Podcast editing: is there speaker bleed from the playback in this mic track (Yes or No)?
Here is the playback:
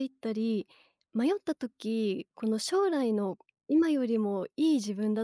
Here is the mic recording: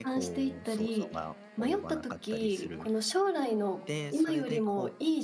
Yes